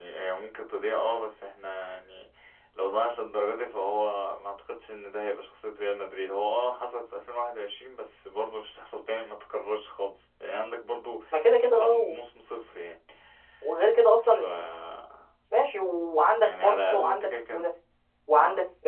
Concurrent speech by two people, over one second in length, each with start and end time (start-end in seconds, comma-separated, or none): 16.4-17.7